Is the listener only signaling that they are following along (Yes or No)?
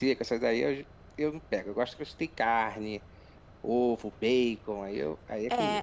No